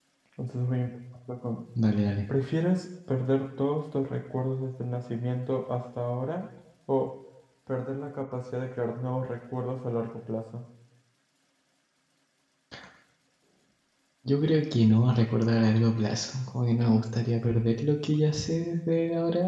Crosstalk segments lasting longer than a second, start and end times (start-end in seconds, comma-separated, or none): none